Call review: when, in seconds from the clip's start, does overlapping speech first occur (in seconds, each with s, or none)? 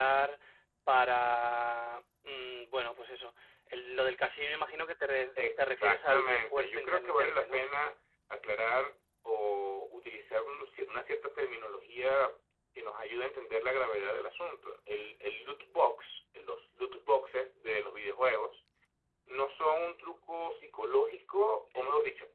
5.4 s